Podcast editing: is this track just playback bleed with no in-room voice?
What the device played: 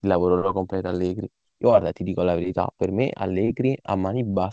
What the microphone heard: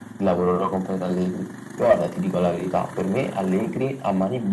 Yes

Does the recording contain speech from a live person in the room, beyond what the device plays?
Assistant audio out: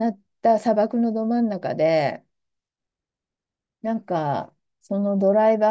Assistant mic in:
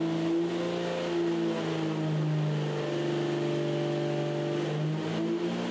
No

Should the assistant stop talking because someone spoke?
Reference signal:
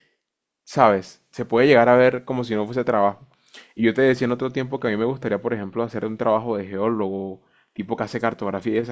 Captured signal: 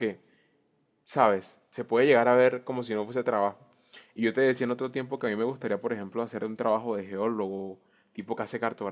No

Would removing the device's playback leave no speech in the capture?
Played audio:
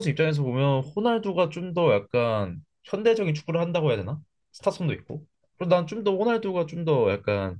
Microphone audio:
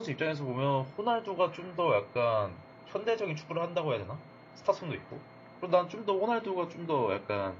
Yes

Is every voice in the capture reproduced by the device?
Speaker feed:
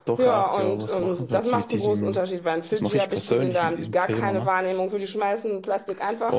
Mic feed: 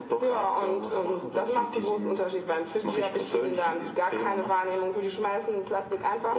Yes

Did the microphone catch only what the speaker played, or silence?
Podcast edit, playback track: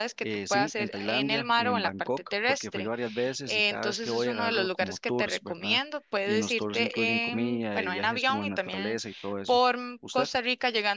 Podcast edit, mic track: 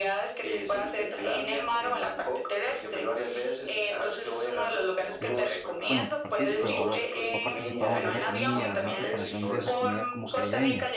No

